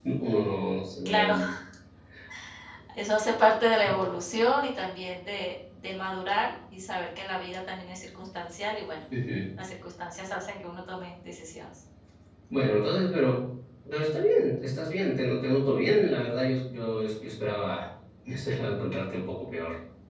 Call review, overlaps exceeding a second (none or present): none